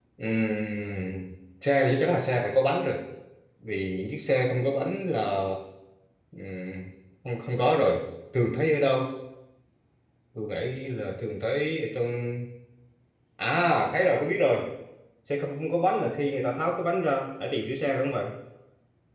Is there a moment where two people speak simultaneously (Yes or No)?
No